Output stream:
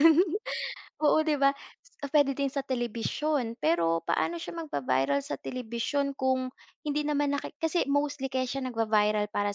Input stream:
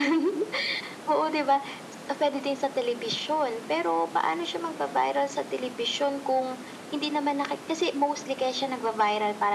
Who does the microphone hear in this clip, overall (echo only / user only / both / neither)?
echo only